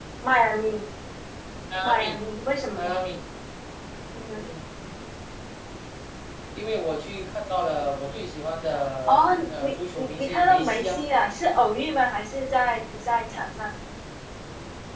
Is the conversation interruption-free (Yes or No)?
No